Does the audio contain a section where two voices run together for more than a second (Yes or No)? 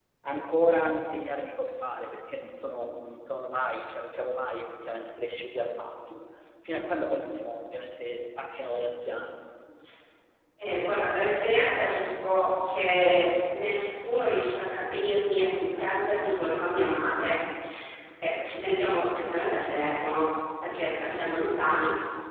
No